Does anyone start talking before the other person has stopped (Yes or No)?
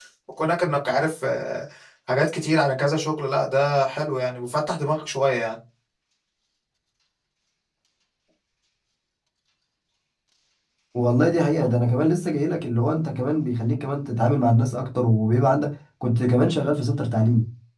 No